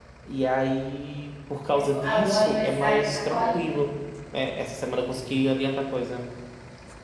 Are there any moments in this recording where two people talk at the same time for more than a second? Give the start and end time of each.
1.7-3.6

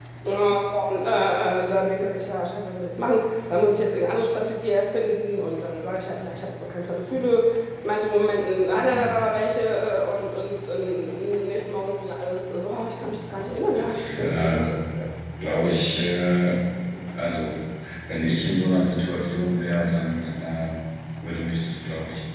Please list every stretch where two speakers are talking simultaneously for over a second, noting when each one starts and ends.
13.4-14.7

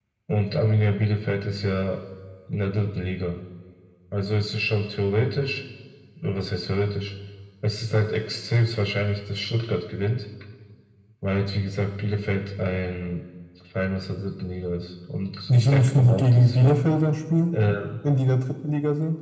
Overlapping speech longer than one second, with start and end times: 15.5-16.8

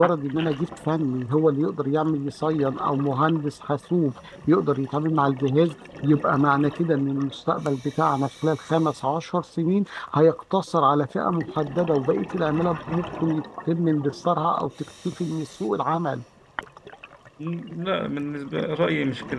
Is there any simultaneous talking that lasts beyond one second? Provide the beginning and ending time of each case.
none

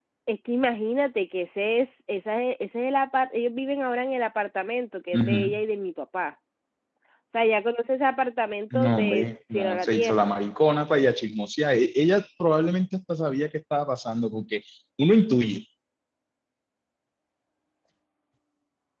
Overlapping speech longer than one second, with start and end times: 8.7-10.3

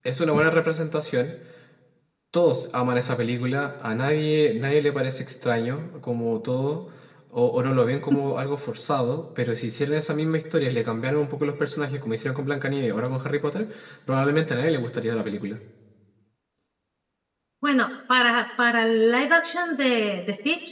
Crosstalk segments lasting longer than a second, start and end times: none

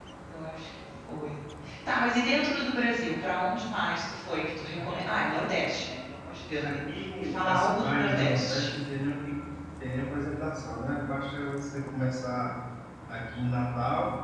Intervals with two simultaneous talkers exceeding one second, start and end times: 7.2-8.7

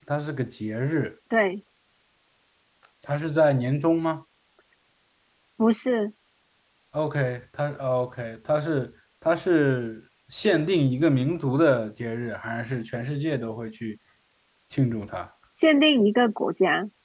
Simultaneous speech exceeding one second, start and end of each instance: none

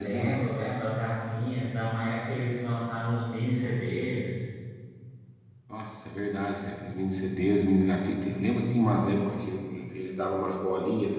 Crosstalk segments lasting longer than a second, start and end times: none

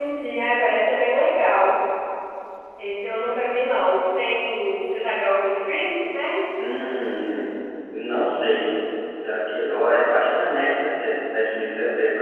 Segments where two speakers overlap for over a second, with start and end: none

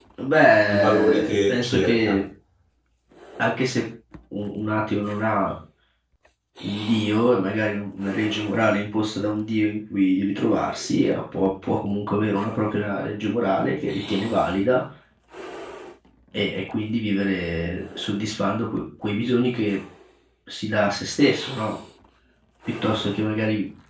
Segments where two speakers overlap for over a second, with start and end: 0.7-2.2

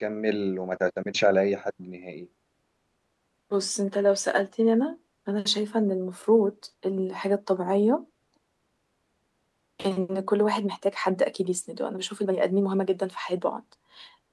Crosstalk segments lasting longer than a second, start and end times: none

